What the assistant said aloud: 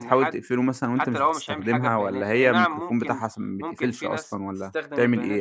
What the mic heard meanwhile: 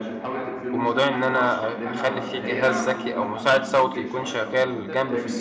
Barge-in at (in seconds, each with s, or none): 0.7 s